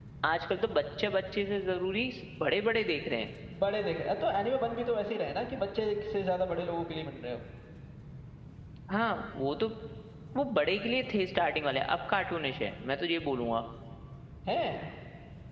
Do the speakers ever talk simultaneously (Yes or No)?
No